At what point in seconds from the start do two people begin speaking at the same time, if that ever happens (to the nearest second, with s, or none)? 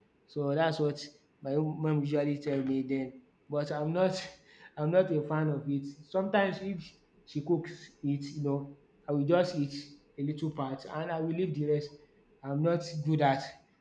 none